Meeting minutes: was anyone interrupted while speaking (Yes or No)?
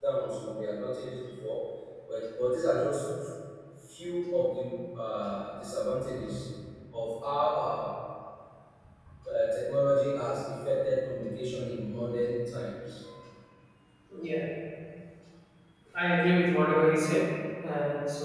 No